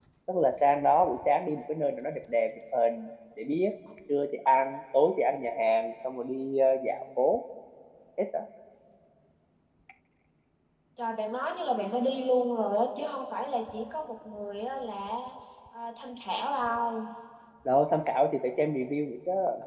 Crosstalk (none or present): none